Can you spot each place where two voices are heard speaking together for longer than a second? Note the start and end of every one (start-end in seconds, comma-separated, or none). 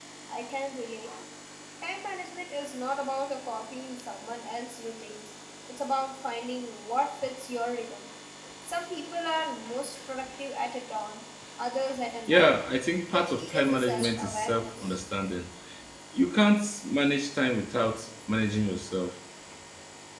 13.1-15.0